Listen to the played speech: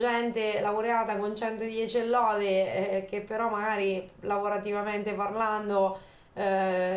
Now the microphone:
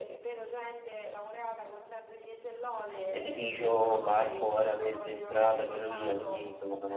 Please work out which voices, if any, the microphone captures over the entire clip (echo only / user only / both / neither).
both